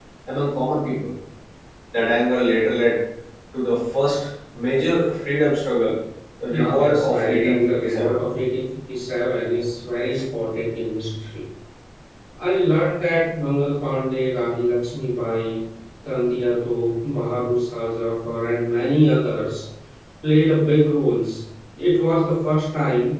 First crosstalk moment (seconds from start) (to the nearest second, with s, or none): 6 s